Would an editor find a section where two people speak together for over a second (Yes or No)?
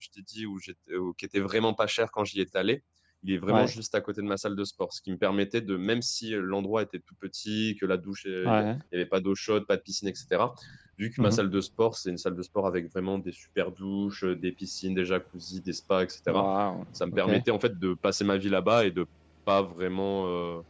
No